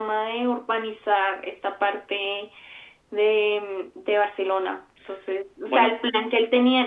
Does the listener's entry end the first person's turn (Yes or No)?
No